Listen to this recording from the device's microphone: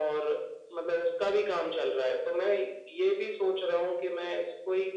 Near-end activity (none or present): none